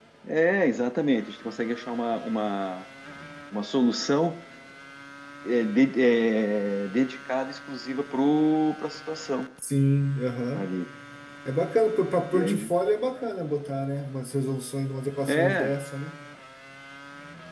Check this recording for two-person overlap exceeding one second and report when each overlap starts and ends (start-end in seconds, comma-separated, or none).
none